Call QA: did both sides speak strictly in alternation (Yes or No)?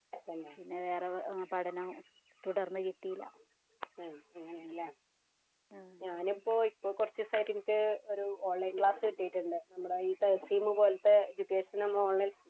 Yes